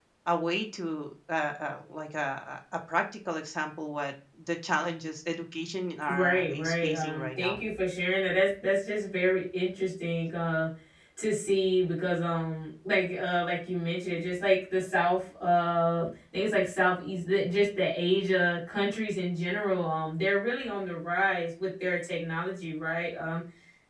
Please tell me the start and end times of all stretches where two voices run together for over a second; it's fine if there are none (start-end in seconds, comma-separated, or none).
6.1-7.6